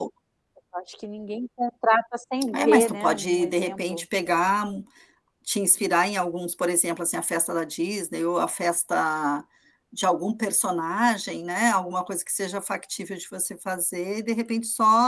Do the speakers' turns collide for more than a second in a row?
Yes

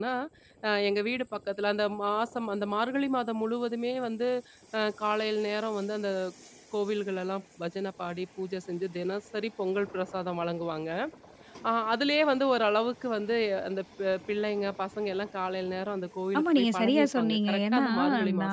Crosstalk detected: Yes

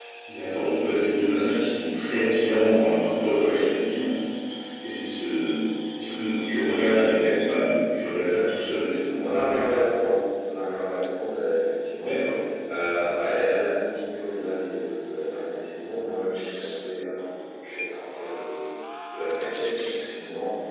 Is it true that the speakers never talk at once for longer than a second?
Yes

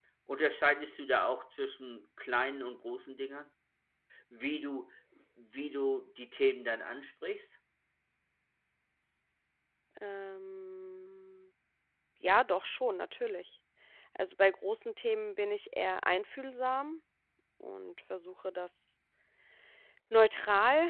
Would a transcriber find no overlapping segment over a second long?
Yes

